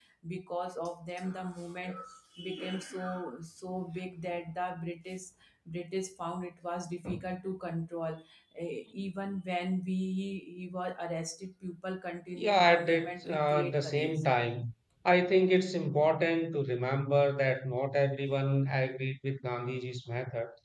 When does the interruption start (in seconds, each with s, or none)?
12.4 s